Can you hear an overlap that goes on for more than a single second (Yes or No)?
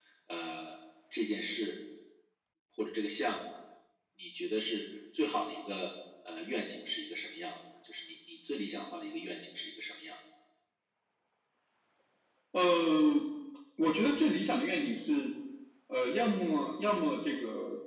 No